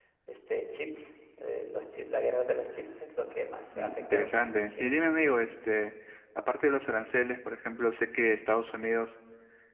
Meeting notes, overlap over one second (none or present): present